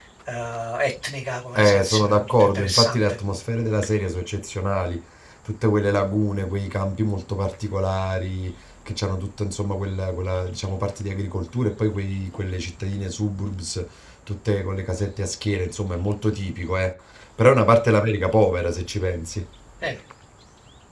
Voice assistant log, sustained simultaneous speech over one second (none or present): present